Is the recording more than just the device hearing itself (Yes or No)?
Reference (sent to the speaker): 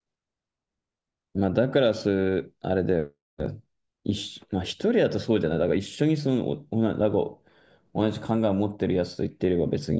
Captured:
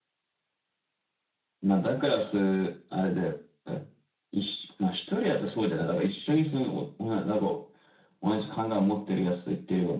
No